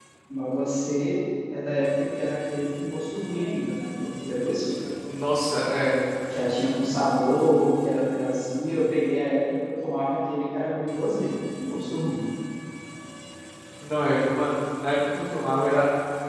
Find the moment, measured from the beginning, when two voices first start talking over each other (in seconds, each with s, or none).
none